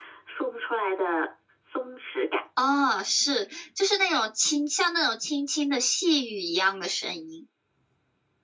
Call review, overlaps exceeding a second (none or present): none